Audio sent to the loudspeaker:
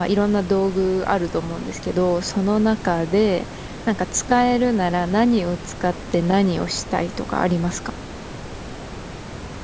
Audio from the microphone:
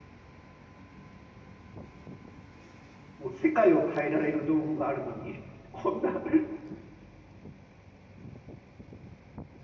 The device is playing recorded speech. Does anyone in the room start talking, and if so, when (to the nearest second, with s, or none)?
3 s